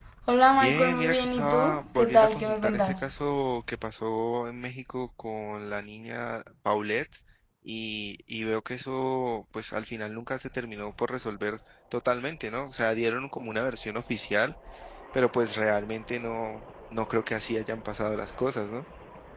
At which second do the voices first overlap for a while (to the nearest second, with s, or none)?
1 s